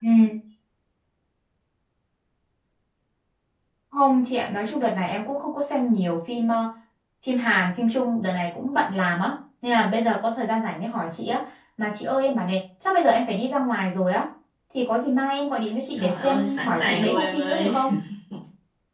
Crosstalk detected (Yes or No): Yes